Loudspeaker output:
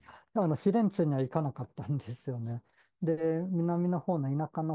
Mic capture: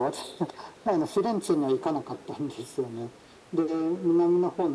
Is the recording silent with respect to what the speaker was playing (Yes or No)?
No